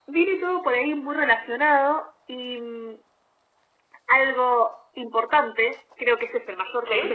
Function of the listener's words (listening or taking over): listening